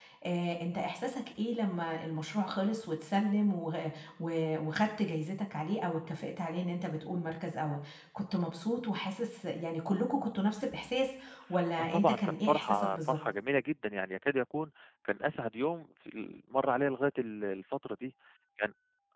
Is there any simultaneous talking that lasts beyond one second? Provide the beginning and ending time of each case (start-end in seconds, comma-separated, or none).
11.8-13.2